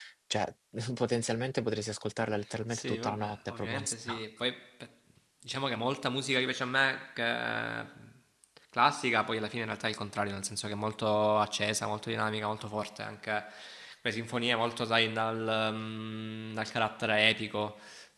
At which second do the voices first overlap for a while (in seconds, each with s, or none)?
2.7 s